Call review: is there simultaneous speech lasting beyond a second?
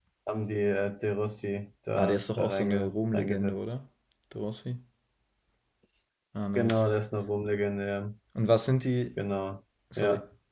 Yes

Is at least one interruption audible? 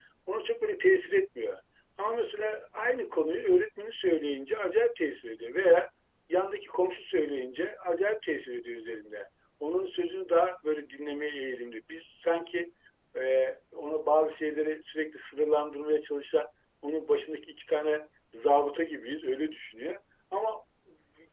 No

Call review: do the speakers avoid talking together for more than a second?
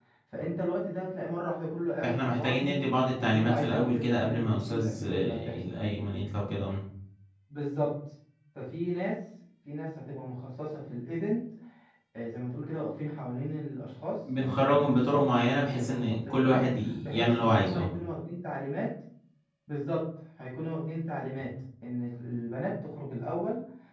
No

